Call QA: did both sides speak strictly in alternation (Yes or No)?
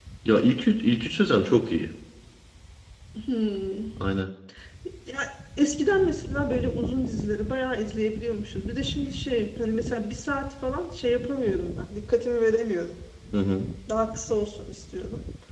Yes